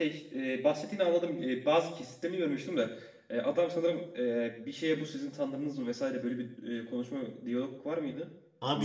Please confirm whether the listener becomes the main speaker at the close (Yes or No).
Yes